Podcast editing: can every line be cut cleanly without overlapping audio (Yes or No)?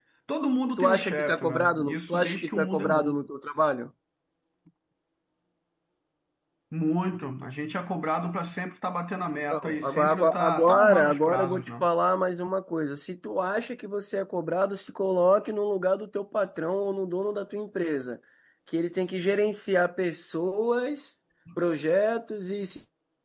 No